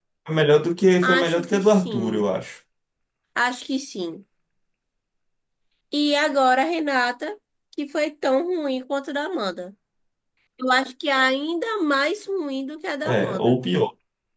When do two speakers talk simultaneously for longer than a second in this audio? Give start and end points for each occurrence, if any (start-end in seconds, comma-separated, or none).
1.0-2.3